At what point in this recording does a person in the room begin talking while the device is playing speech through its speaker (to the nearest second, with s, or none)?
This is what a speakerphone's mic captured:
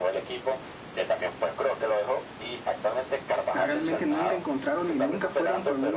4 s